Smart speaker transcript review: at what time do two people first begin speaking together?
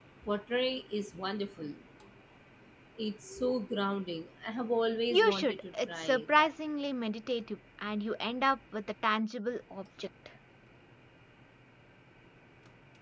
5.1 s

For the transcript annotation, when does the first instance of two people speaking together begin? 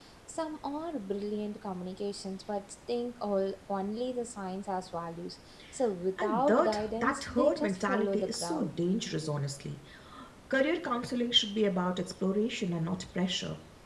6.2 s

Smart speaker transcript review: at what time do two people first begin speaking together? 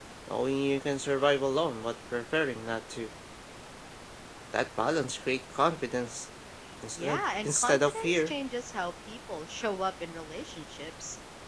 7.0 s

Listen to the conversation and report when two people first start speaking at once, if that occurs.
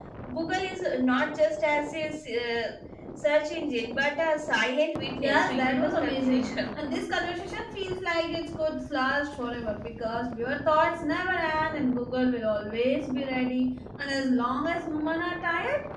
5.2 s

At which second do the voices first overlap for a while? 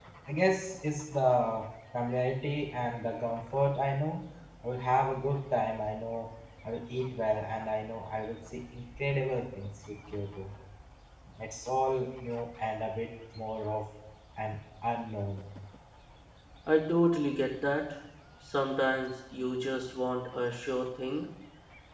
none

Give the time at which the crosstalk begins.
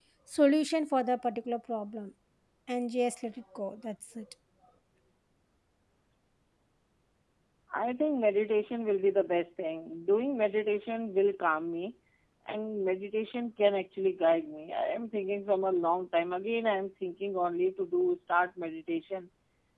none

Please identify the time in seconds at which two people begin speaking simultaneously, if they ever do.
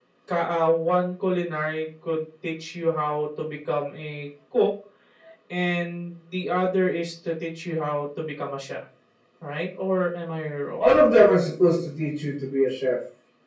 none

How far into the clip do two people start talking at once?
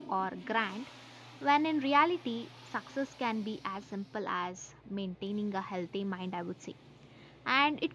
none

